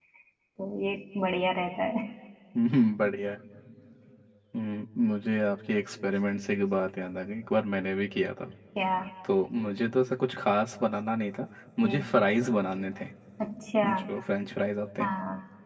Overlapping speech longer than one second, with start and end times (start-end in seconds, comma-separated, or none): none